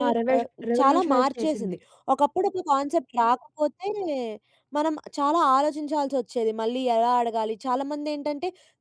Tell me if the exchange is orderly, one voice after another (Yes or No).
No